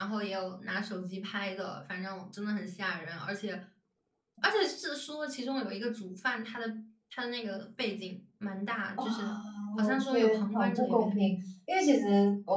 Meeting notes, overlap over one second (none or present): present